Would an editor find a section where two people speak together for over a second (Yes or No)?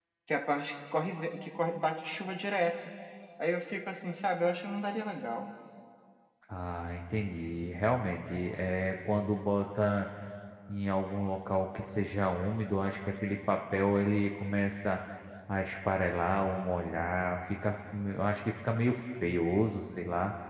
No